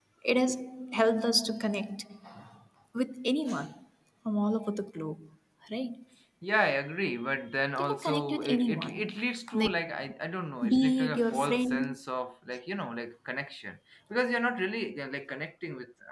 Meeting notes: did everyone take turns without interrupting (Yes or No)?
No